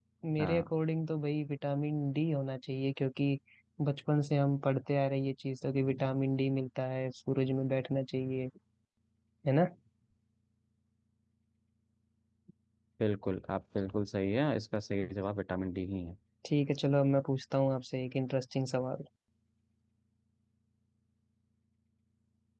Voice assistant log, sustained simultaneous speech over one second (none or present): none